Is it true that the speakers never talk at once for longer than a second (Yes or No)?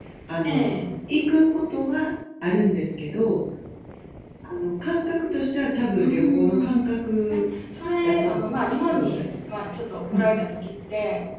No